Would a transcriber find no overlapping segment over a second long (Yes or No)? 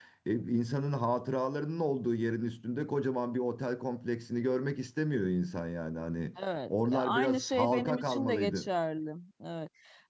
No